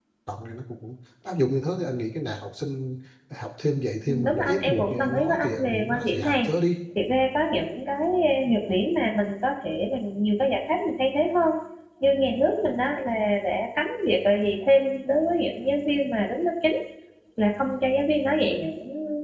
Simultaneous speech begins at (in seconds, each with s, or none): 4.1 s